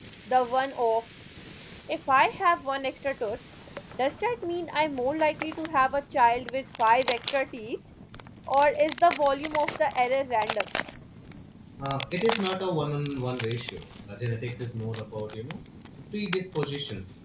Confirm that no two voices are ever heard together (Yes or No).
Yes